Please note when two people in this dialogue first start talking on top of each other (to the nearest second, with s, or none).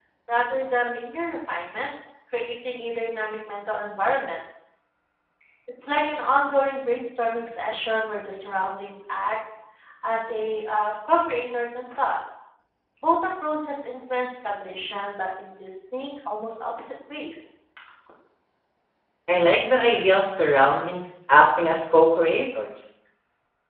none